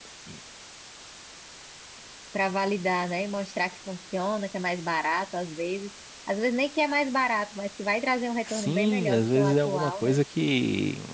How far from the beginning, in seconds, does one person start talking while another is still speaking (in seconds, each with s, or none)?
8.5 s